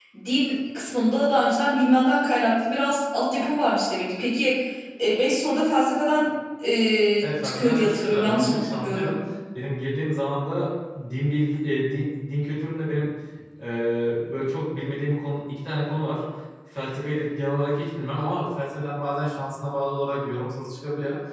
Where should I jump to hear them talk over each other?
7.2 s

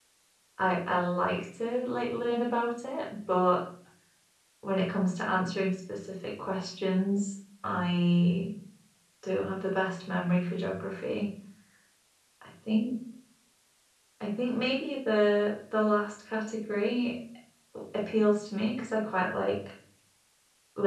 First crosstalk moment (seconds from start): none

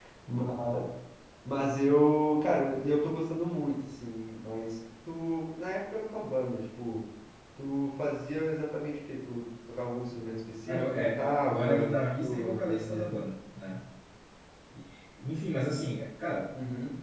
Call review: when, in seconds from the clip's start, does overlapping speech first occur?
10.7 s

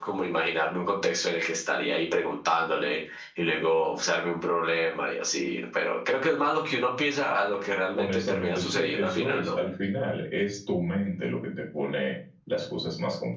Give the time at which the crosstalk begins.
8.0 s

